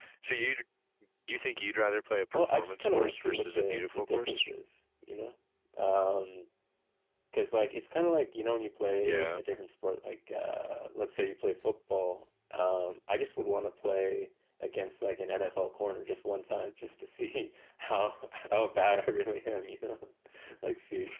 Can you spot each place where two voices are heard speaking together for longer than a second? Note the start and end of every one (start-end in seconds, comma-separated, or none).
2.3-4.4